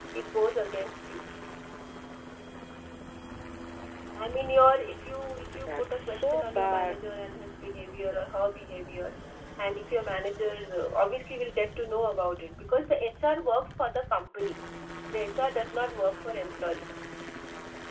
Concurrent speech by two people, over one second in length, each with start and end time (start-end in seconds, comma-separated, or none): 5.5-7.1